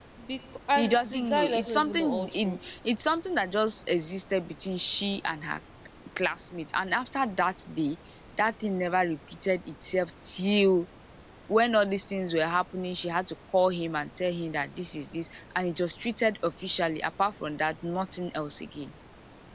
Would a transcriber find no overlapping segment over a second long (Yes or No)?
No